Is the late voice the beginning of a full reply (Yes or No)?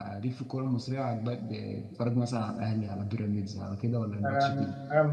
Yes